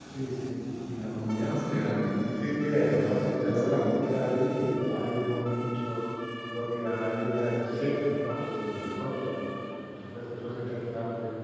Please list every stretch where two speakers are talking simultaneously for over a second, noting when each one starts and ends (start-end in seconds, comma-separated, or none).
2.8-4.1